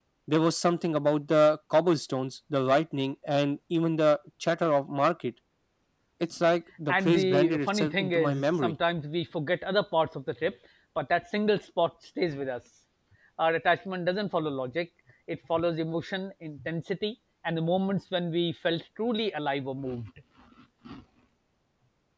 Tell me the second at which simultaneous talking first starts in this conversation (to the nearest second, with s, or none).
7 s